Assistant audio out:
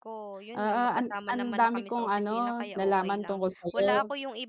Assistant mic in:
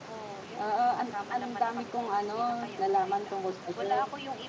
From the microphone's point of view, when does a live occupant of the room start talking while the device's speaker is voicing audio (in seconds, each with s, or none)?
none